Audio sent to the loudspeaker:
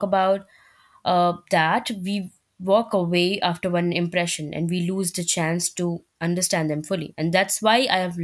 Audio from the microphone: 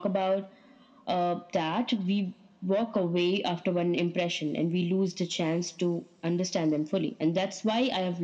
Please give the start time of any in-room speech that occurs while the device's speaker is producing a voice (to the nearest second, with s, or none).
none